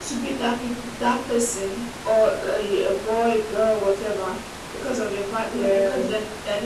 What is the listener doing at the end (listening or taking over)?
listening